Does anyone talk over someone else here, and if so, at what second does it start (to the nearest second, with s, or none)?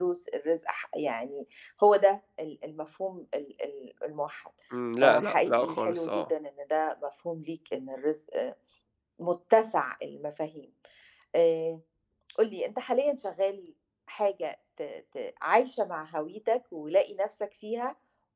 5 s